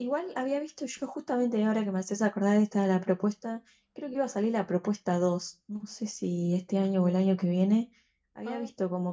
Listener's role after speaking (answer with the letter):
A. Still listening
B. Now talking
A